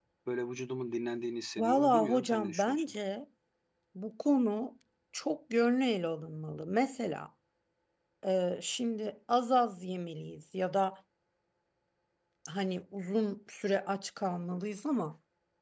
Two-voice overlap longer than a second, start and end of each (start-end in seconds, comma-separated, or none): 1.6-2.9